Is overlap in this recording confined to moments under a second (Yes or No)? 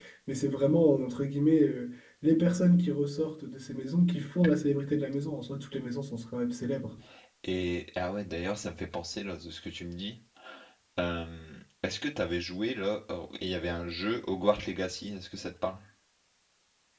Yes